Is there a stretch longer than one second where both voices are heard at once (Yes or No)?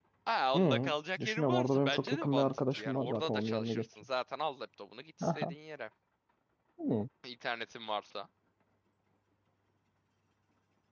Yes